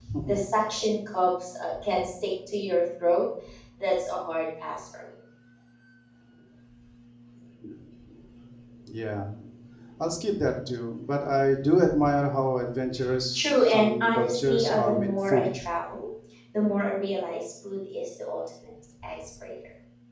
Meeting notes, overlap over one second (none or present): present